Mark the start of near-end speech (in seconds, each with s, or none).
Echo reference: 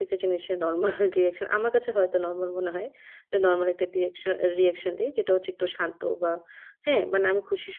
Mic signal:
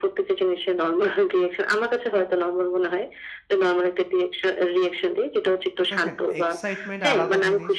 5.9 s